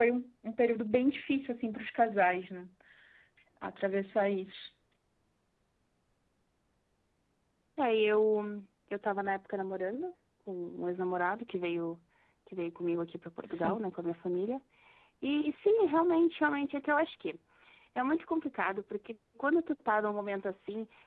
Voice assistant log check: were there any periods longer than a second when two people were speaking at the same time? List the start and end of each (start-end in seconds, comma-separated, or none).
none